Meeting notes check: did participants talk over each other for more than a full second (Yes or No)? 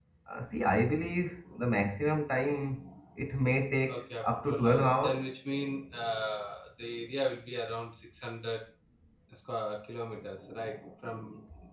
Yes